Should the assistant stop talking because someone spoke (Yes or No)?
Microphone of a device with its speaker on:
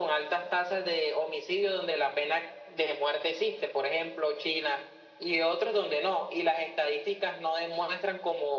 No